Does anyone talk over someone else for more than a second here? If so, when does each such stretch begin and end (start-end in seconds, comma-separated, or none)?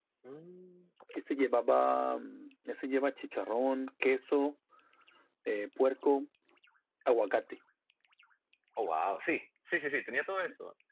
none